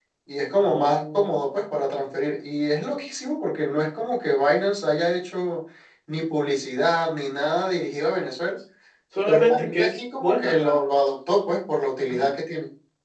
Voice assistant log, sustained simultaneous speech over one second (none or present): present